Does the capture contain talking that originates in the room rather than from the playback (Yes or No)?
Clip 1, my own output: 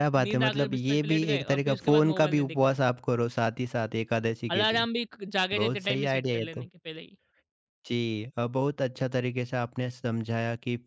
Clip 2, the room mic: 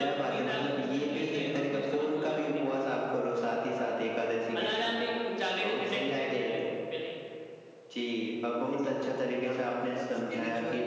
Yes